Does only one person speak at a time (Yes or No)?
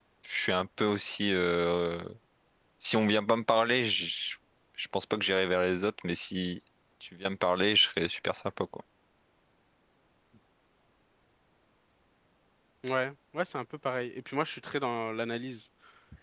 Yes